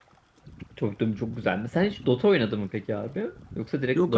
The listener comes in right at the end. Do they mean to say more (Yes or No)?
Yes